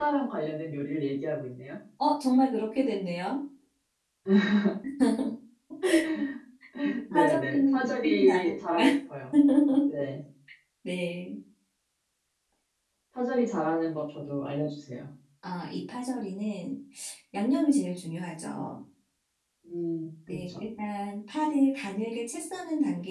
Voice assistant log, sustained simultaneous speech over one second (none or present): present